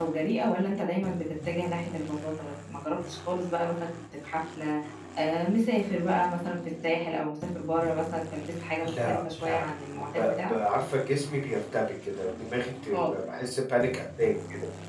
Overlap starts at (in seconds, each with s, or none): 8.8 s